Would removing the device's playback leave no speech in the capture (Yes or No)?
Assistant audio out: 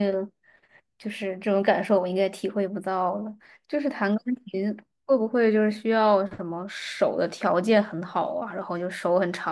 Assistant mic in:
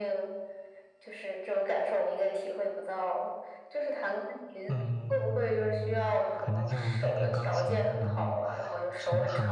No